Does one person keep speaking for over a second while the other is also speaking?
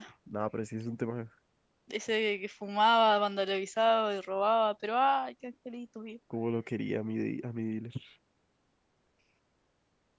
No

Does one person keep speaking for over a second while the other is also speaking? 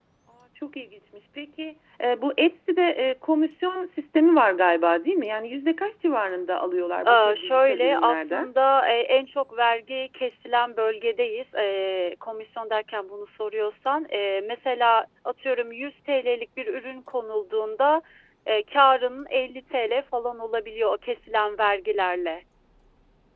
Yes, from 7.0 s

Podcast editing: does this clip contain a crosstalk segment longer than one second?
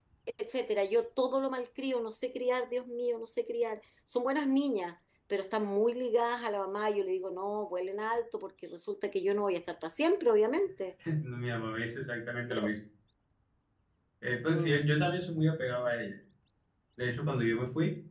No

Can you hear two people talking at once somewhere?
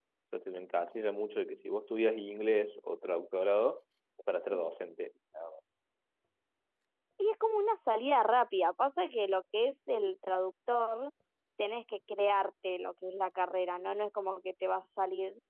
No

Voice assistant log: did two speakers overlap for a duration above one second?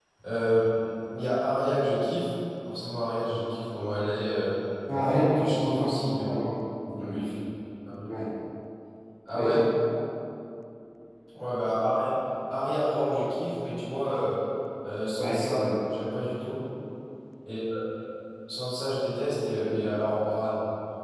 Yes, from 5.0 s

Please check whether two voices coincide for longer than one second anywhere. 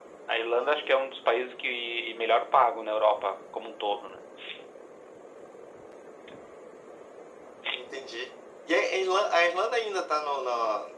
No

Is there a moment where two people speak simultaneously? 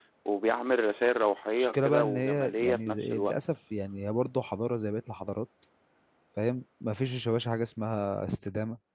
Yes, from 1.6 s

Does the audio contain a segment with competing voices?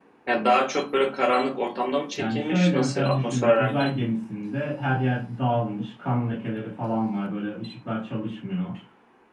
Yes, from 2.2 s

